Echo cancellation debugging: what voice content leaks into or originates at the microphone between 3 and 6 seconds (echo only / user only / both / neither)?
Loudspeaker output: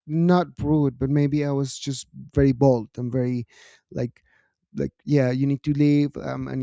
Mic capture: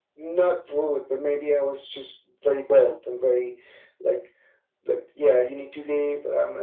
echo only